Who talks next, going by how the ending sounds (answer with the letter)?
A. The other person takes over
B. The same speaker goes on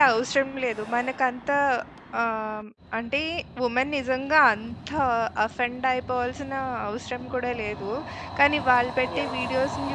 B